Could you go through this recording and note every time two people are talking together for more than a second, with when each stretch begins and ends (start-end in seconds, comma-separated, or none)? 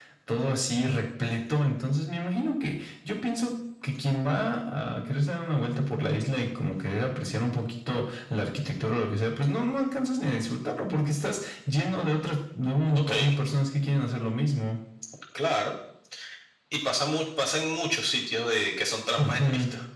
none